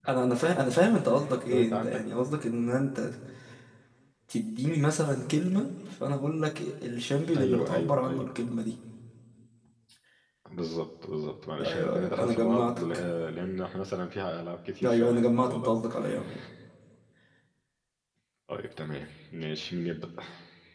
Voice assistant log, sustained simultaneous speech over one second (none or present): present